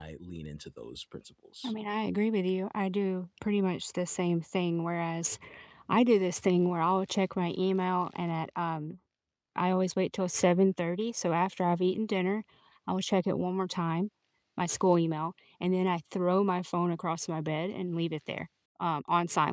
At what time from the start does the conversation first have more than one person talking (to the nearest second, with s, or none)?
none